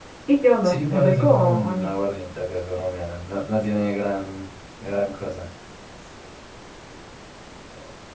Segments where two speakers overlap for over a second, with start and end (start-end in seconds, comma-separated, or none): 0.6-1.9